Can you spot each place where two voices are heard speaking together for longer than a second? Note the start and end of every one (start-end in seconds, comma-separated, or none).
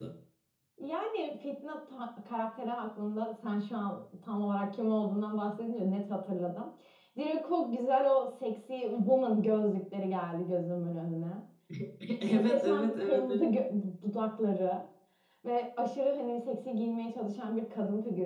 12.2-13.4